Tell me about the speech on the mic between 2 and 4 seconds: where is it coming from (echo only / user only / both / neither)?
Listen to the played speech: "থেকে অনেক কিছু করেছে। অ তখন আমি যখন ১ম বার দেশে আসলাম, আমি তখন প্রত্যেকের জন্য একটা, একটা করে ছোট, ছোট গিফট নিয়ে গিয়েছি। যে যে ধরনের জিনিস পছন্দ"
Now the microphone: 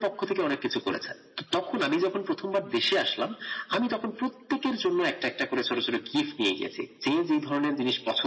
echo only